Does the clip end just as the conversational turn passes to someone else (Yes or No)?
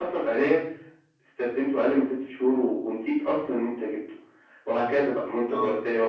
No